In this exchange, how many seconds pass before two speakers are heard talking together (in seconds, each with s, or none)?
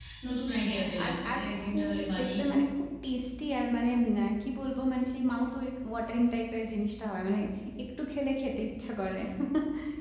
0.7 s